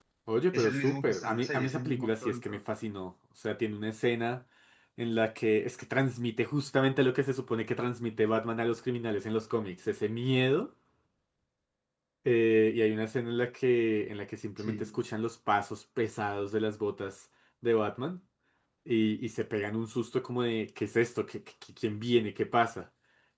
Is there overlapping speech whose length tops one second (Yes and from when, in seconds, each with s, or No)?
Yes, from 0.5 s